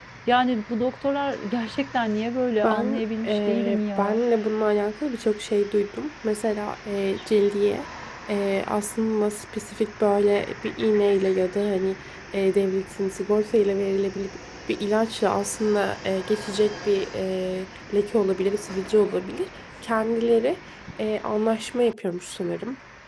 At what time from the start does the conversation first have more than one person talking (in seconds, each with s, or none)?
2.6 s